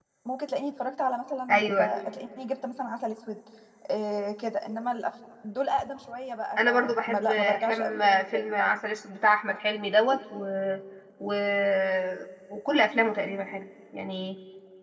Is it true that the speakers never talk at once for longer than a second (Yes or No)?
No